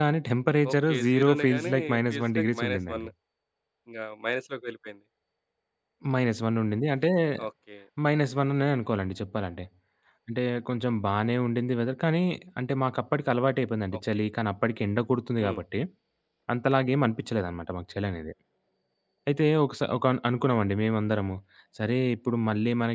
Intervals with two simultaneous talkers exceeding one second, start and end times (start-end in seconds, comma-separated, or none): 0.7-3.1